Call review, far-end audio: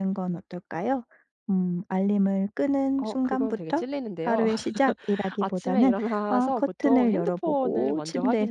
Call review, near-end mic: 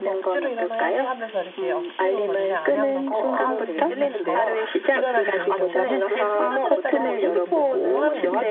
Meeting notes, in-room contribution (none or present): present